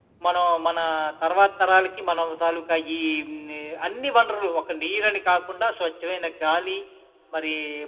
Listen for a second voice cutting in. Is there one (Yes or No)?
No